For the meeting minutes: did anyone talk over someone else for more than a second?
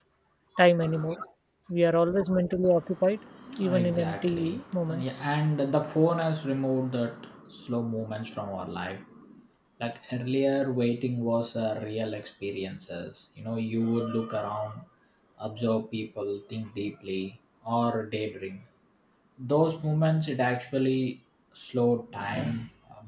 Yes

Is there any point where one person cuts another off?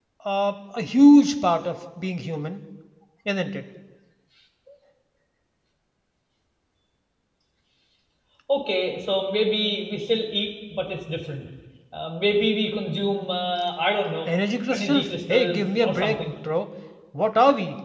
Yes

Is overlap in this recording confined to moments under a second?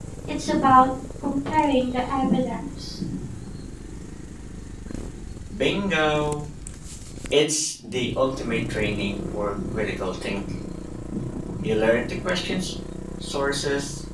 Yes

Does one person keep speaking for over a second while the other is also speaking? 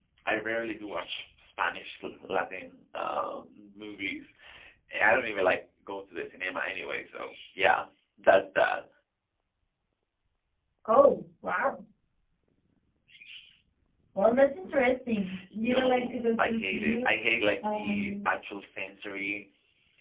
Yes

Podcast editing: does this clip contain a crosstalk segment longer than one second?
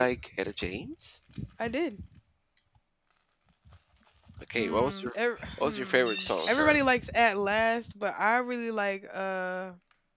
Yes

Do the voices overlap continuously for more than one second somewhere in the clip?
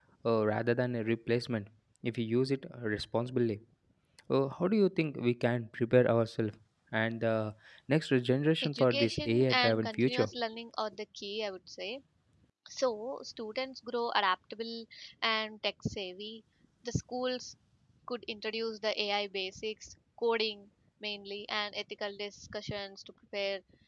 Yes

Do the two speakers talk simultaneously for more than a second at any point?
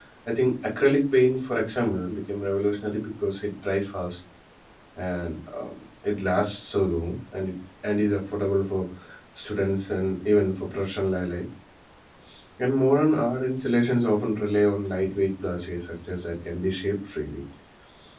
No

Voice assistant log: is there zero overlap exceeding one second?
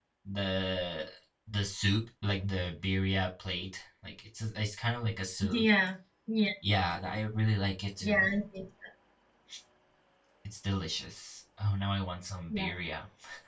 Yes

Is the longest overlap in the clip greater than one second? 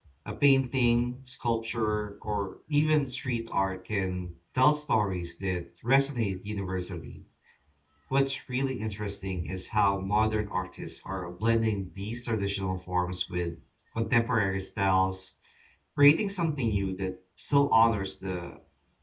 No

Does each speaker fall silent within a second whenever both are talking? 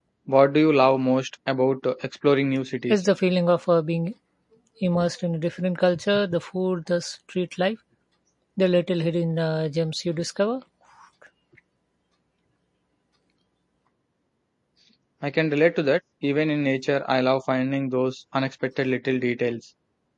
Yes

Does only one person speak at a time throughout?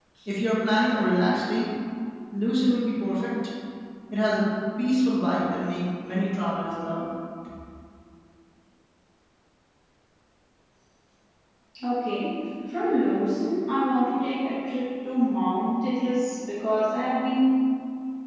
Yes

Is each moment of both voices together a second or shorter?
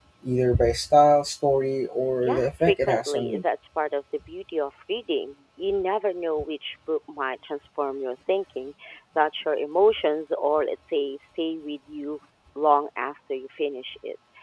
No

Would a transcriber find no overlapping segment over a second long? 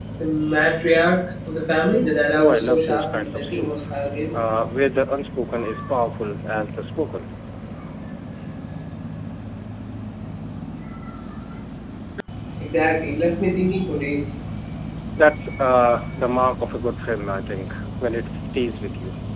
No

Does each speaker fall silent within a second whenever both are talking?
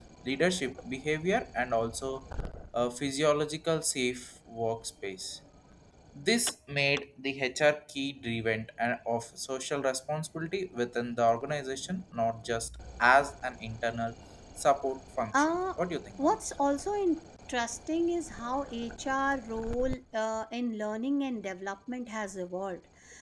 Yes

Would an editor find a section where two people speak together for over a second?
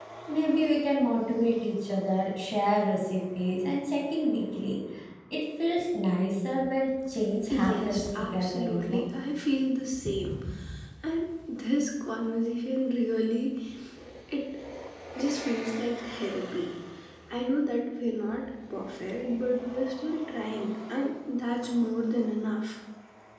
Yes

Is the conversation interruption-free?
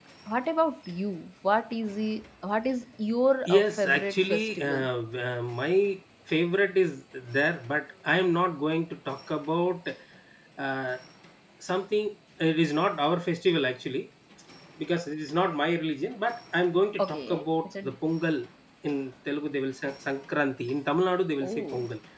No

